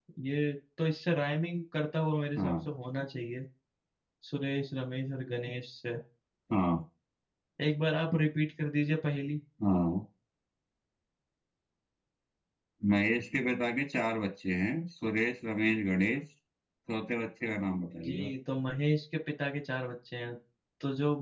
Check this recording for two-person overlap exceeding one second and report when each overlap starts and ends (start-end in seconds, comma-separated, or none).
none